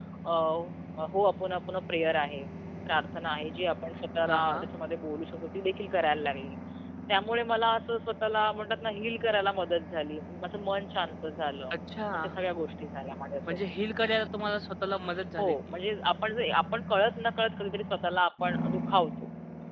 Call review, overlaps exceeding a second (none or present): none